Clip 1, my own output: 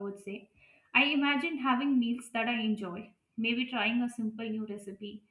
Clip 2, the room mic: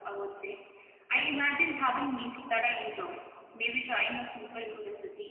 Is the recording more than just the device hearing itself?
No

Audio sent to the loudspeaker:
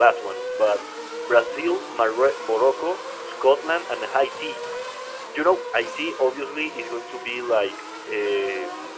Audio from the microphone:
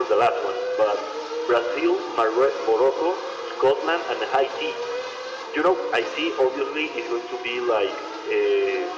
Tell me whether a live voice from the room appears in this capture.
No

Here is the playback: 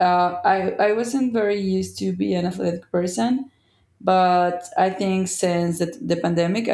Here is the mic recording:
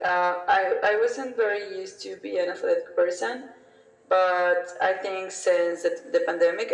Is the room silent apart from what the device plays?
Yes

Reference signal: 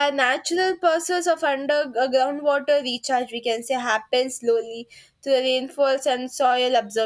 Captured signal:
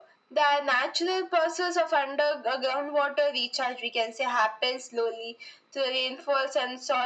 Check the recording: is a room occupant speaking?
No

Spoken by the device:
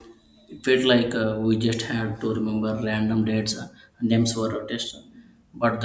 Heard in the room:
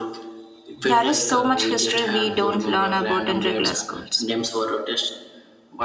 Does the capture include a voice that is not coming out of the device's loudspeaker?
Yes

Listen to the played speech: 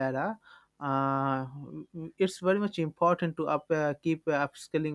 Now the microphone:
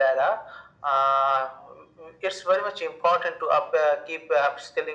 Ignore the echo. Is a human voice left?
No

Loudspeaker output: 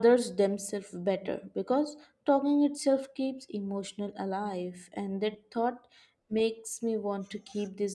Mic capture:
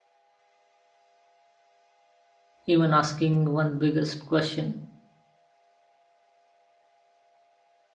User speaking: Yes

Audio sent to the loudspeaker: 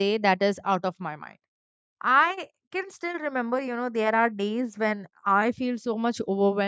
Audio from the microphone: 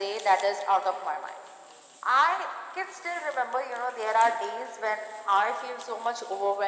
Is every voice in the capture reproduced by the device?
Yes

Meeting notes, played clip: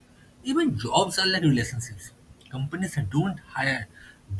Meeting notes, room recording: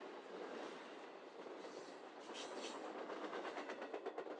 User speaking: No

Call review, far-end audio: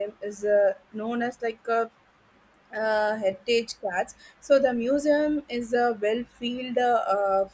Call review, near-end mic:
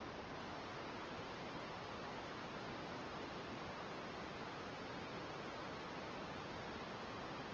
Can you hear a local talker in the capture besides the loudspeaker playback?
No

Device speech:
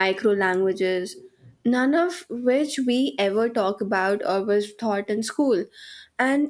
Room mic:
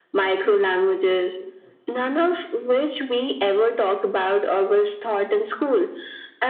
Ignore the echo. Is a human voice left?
No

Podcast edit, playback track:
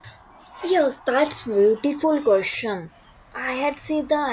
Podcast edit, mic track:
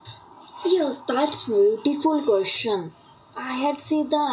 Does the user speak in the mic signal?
No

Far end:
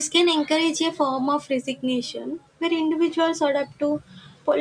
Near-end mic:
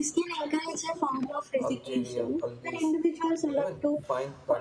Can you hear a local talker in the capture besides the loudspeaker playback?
Yes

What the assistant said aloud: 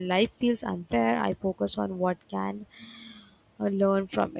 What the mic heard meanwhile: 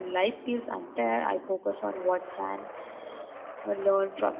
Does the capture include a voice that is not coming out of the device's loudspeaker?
No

